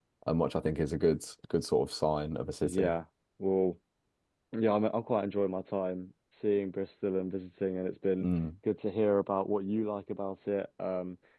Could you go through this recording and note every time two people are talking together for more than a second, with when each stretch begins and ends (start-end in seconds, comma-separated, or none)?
none